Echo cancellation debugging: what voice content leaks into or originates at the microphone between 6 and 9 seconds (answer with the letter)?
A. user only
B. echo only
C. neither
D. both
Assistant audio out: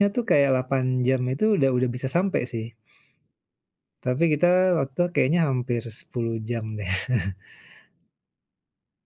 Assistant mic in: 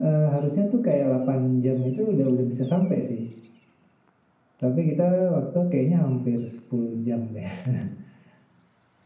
B